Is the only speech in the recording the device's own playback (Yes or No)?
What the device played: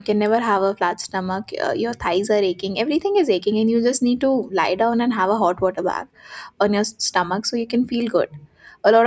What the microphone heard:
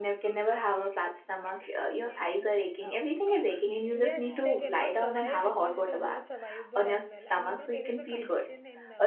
No